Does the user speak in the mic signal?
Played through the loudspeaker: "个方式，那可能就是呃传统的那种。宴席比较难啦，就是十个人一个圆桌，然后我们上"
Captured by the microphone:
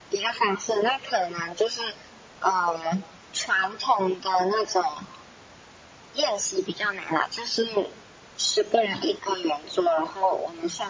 No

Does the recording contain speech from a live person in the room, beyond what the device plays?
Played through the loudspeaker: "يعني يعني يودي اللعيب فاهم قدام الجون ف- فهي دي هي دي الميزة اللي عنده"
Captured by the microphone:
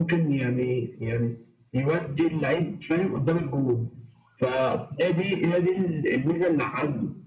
No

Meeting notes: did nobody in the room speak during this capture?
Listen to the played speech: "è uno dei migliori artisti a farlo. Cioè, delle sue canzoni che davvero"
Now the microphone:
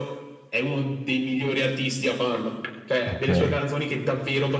No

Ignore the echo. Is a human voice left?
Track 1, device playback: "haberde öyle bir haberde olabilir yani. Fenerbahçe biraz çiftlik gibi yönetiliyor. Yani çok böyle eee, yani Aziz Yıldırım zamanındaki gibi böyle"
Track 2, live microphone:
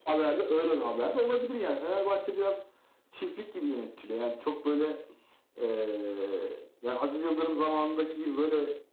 No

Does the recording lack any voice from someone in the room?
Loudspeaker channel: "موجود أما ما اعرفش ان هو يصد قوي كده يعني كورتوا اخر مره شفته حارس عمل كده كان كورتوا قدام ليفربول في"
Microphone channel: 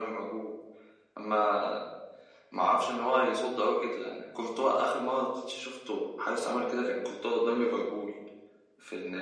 Yes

